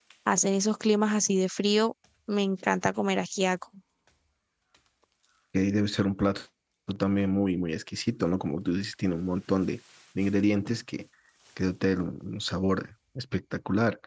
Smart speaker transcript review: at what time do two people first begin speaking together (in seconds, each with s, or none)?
none